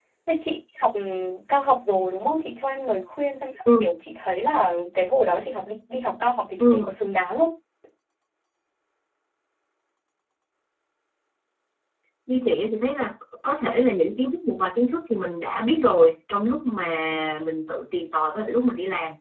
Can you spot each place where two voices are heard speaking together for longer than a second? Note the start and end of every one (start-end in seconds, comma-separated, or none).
none